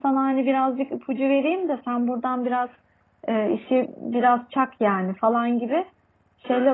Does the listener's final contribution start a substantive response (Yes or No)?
No